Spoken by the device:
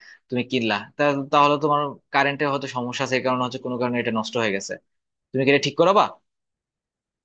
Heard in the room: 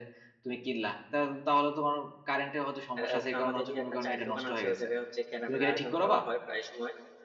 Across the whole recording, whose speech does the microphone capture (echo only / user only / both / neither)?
both